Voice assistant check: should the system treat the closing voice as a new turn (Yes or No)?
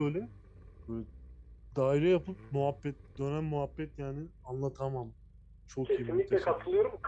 Yes